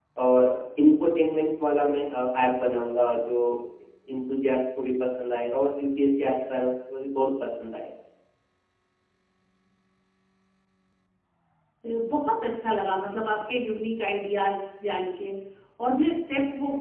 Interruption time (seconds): none

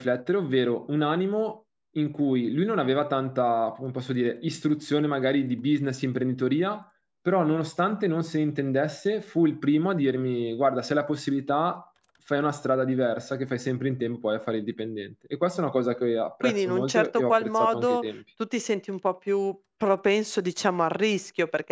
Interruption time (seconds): 16.4 s

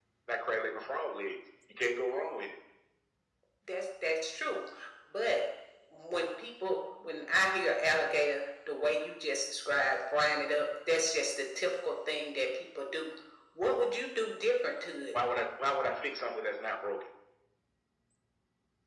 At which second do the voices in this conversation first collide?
none

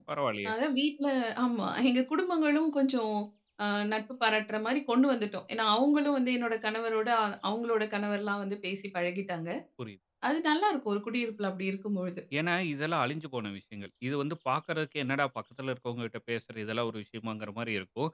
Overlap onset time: none

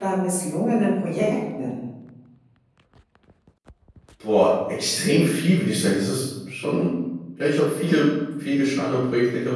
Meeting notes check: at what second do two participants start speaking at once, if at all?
none

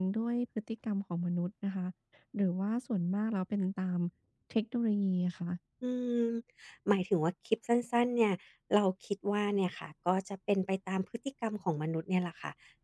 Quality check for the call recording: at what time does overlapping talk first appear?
none

